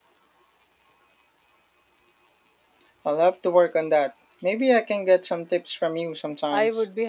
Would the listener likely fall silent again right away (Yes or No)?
No